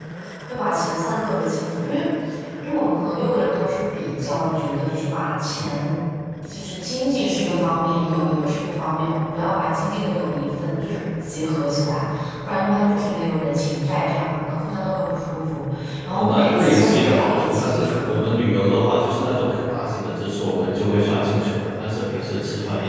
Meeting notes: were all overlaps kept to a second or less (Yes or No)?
No